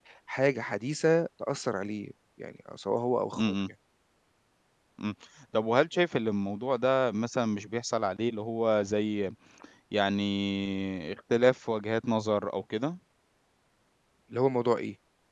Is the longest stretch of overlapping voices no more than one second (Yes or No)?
Yes